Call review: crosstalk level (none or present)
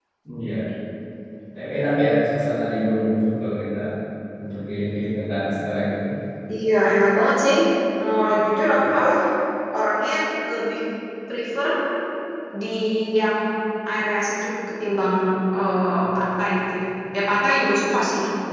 none